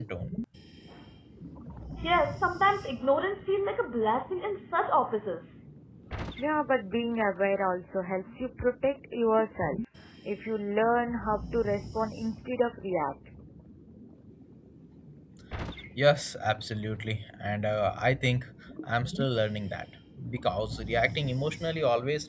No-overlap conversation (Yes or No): Yes